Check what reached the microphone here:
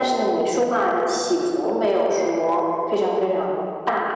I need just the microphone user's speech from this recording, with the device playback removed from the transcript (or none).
none